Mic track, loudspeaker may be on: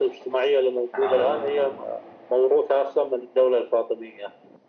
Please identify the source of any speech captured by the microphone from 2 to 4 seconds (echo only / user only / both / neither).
echo only